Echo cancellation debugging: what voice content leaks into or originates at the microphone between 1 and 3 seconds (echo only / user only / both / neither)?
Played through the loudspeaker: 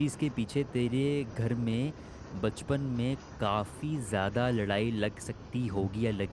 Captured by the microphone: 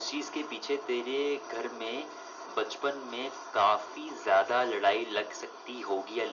echo only